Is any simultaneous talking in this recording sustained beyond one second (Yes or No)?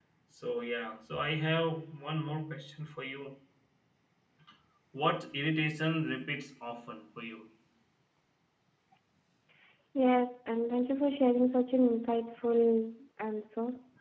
No